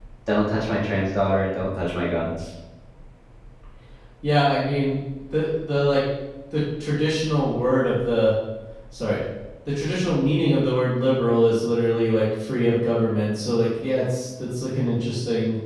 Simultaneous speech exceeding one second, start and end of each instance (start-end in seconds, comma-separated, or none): none